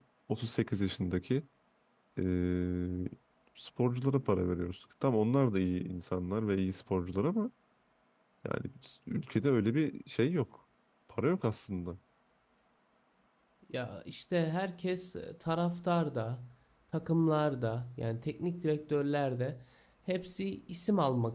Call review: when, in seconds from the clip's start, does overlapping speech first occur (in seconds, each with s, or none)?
none